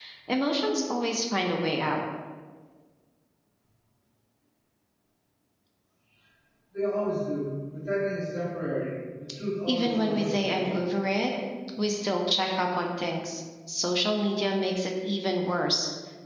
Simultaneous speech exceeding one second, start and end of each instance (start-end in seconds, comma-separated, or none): 9.7-10.9